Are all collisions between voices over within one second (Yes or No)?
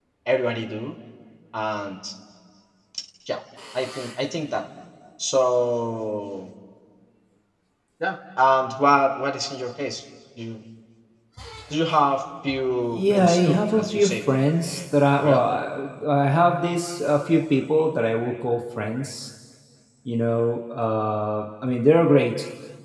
No